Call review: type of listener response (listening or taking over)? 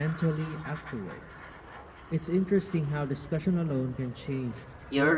taking over